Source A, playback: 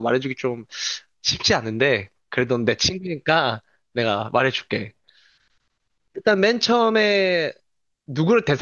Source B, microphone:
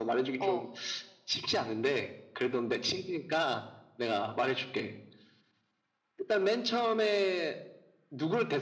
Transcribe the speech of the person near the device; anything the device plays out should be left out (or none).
어,